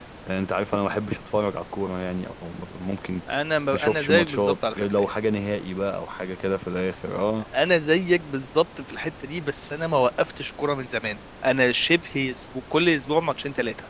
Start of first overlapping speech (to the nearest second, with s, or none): 4 s